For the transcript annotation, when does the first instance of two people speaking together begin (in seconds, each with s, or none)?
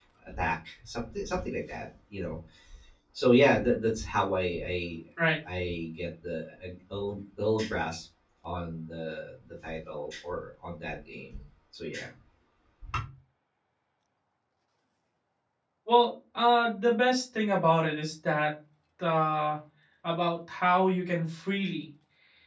none